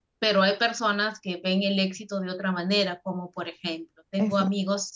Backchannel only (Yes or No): Yes